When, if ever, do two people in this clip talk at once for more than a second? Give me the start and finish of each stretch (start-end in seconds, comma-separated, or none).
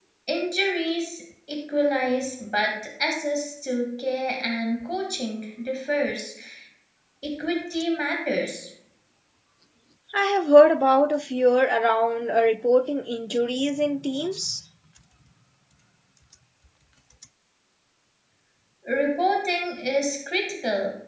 none